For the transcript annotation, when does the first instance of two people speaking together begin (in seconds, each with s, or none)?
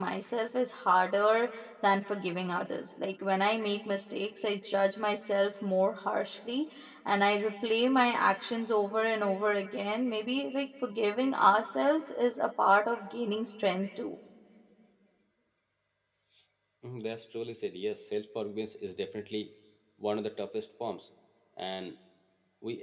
none